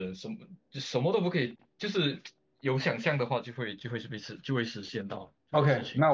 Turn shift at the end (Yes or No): Yes